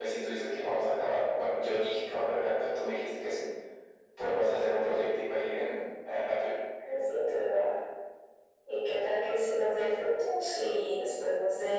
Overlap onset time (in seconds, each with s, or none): none